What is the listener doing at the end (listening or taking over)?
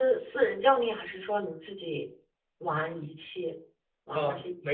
taking over